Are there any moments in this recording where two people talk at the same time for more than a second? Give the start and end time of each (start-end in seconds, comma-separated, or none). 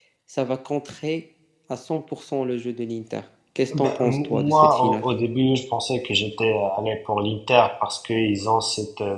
3.8-5.0